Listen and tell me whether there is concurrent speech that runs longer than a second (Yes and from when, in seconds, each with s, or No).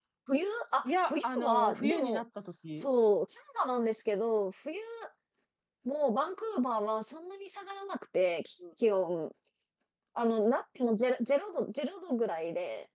Yes, from 0.8 s